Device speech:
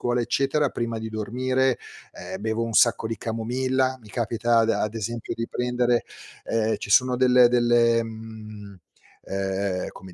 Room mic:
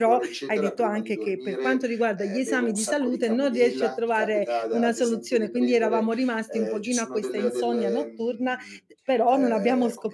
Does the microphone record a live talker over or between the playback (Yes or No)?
Yes